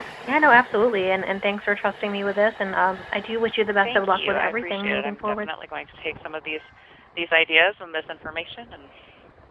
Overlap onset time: 3.7 s

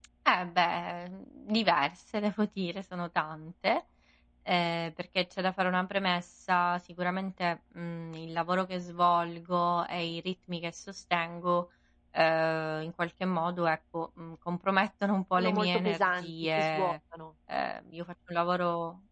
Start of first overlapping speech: 15.4 s

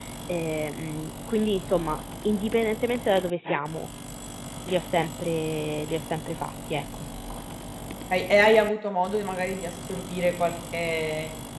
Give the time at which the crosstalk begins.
none

